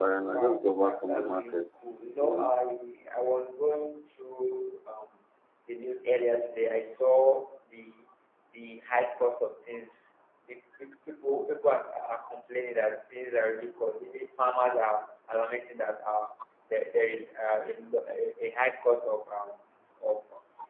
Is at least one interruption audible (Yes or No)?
Yes